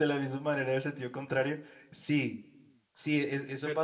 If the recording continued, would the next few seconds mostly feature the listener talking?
No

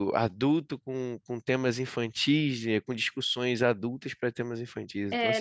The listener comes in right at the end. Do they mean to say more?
Yes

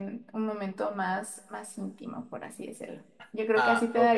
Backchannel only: Yes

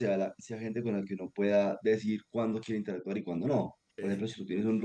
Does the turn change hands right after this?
No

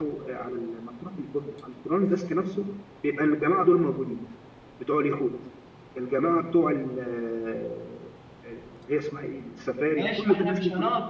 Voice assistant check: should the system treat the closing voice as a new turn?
Yes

